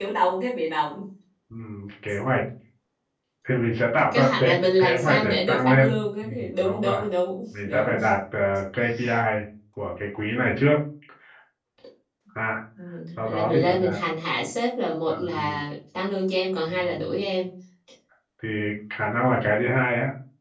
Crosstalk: present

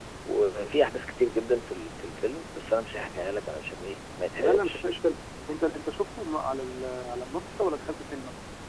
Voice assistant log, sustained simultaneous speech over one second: none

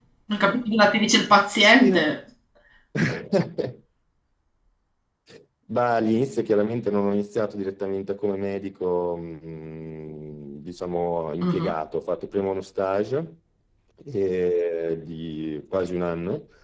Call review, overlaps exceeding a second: none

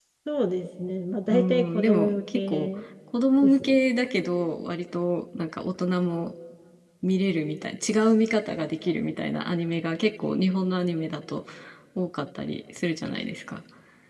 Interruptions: present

